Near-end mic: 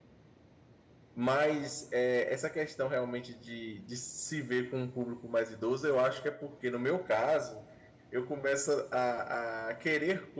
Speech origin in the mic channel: user only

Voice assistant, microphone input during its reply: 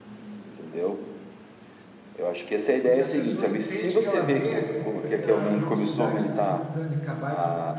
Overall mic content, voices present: both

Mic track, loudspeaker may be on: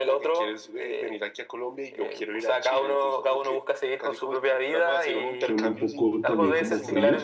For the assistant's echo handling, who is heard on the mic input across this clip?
both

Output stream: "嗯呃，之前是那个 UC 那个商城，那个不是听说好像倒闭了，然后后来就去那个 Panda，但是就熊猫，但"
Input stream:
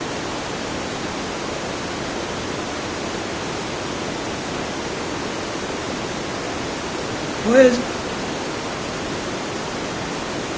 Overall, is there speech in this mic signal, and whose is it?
user only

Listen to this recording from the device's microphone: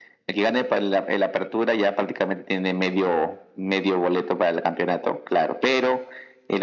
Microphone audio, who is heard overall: echo only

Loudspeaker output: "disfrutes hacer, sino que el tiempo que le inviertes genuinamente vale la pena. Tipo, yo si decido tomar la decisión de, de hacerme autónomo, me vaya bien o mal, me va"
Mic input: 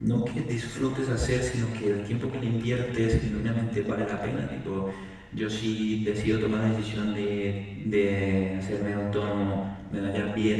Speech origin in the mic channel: echo only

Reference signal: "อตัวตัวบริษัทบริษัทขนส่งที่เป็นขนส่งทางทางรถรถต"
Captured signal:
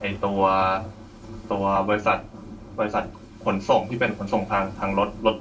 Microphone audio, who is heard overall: echo only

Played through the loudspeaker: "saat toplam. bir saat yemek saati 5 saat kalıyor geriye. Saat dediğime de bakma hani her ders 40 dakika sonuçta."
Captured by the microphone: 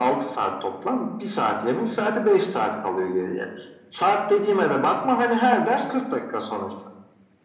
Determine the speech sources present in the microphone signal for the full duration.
echo only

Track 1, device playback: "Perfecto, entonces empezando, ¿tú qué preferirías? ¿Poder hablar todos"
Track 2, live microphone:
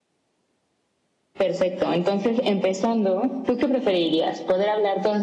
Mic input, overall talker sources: echo only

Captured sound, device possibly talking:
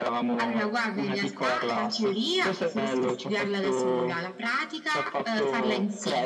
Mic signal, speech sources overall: echo only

